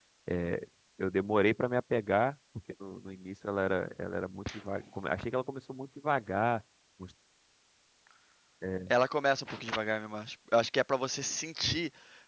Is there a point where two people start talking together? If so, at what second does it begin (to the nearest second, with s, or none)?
none